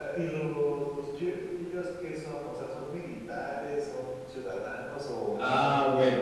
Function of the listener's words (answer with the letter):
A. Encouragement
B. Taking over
B